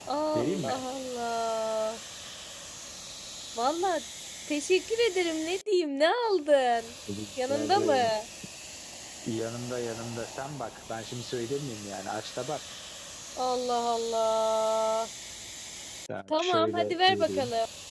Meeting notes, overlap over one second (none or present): present